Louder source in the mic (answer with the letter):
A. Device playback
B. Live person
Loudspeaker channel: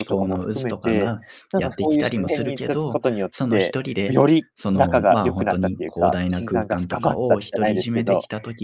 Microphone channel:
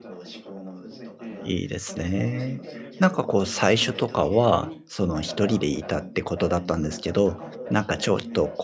B